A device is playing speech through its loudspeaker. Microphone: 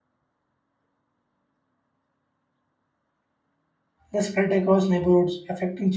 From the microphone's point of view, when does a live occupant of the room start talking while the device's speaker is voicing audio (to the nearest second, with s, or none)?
4 s